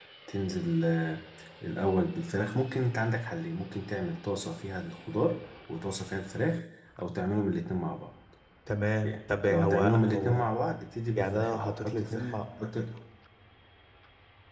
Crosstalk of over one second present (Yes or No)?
Yes